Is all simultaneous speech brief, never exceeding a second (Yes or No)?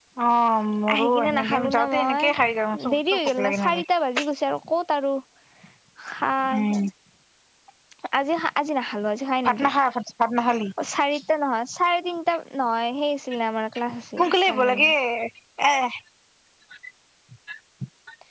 No